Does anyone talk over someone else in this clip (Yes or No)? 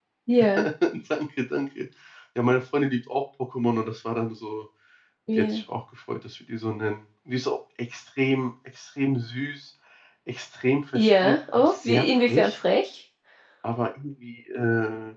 Yes